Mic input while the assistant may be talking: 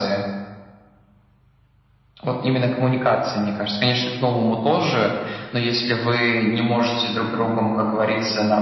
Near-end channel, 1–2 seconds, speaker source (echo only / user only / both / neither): neither